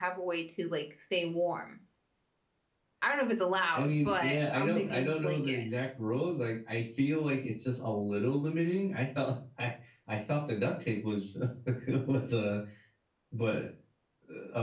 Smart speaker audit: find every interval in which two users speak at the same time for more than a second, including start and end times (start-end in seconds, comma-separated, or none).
3.7-5.5